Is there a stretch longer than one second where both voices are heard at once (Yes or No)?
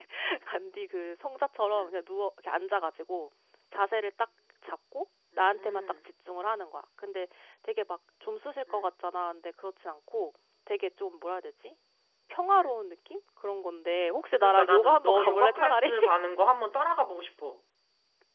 Yes